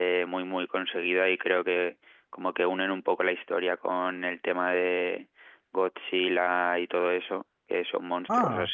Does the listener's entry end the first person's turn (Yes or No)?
No